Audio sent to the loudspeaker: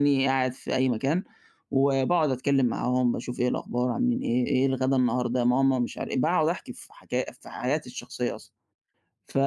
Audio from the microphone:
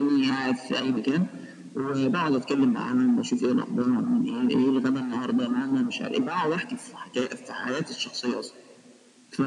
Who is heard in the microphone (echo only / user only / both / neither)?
echo only